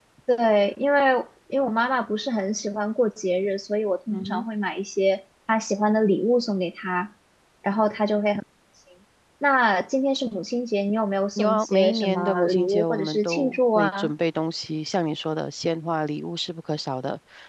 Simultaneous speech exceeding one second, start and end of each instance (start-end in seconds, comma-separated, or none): 11.4-14.1